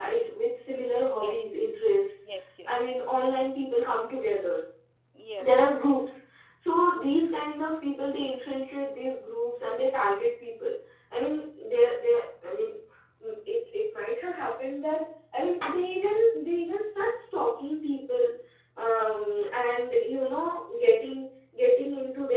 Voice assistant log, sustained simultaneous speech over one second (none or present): none